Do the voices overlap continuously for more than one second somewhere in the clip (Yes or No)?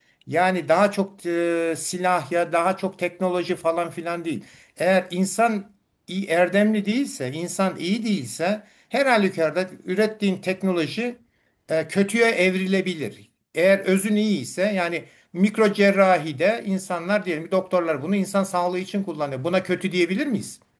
No